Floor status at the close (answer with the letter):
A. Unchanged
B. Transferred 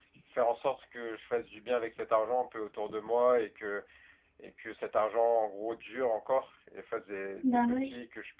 A